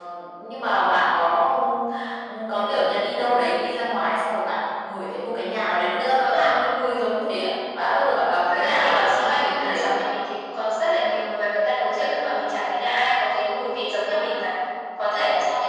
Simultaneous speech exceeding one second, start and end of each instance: 8.5-9.9

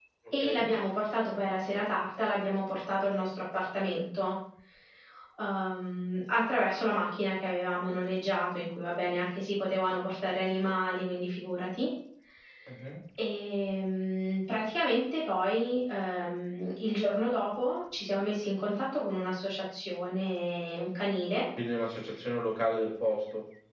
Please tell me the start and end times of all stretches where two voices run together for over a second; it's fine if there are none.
none

